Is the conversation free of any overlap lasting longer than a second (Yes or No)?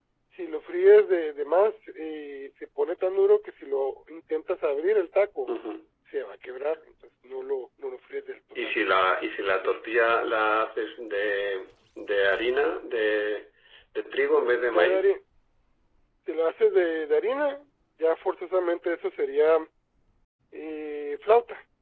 Yes